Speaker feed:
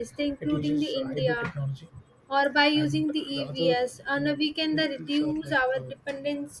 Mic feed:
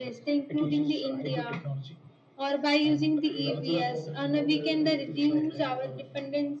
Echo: present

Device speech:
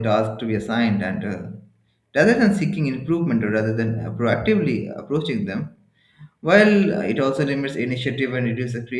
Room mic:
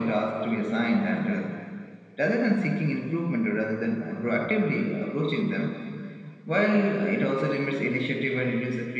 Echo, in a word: present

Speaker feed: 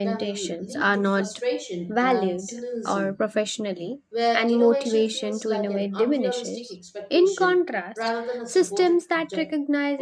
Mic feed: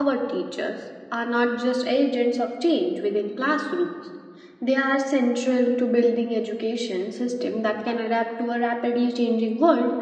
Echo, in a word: none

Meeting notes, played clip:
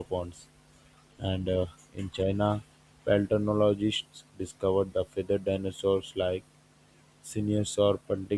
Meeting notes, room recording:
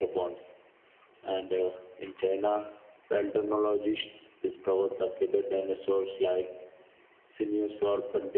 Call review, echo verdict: present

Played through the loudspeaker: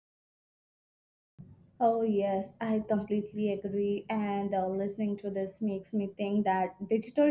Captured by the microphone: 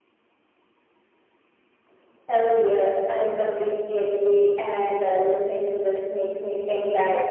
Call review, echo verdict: present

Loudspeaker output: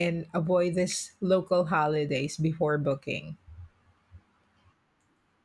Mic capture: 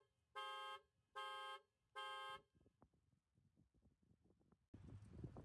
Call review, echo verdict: none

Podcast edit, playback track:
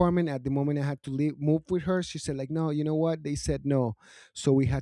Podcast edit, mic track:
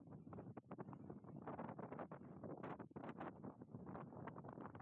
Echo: none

